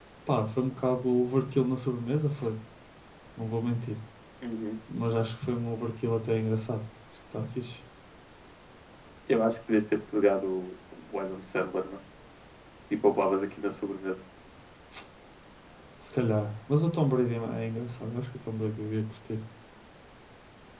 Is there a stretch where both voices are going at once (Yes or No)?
No